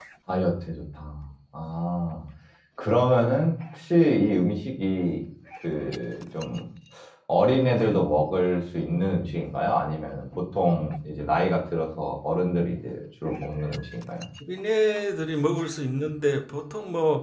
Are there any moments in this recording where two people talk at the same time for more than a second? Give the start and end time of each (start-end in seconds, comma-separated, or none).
none